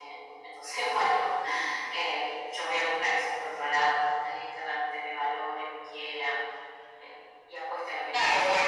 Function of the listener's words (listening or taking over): taking over